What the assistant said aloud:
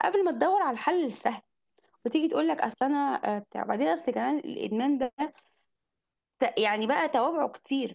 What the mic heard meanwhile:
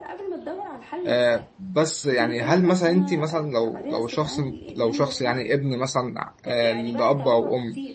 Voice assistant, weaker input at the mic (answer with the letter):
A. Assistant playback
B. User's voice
A